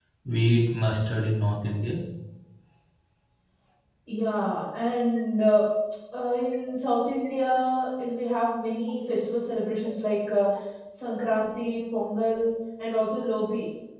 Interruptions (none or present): none